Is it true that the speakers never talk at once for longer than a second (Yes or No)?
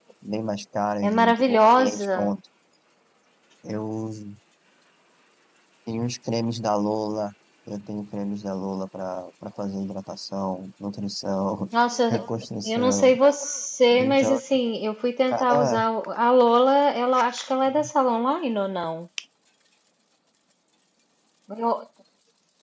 No